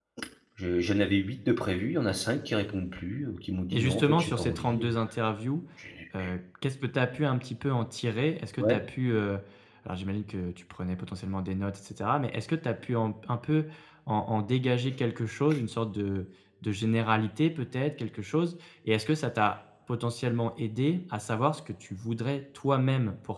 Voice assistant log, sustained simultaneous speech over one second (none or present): present